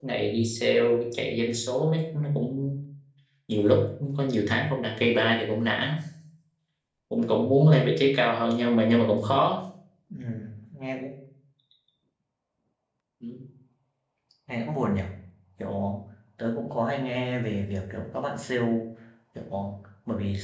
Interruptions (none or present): none